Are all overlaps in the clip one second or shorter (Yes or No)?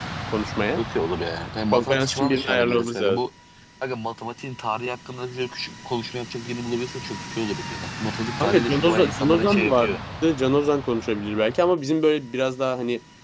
No